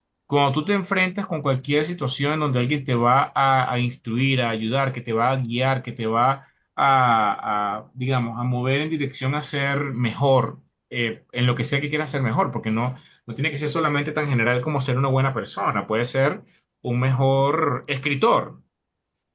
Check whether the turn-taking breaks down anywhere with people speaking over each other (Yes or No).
No